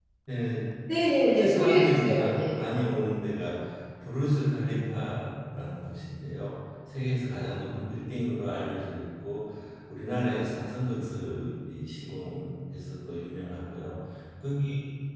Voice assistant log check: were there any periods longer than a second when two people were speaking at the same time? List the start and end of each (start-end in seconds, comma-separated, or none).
1.0-2.8